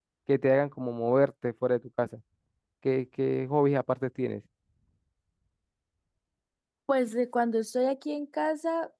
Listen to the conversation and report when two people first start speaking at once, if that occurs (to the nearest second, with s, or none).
none